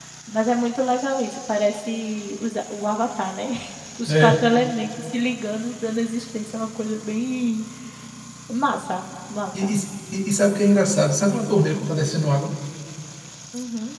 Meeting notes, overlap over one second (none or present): none